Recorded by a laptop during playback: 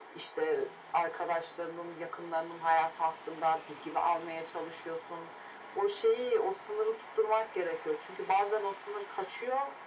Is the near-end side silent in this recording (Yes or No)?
Yes